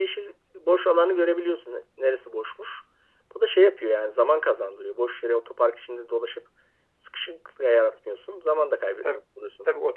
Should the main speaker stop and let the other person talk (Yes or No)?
Yes